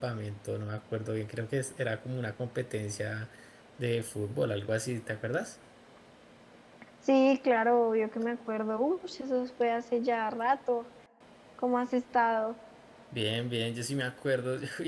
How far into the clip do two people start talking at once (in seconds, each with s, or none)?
none